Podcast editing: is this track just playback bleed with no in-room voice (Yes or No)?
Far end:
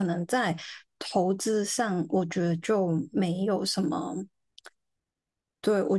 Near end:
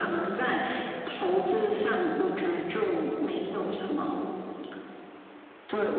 Yes